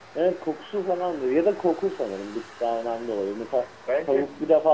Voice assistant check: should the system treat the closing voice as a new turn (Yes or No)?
No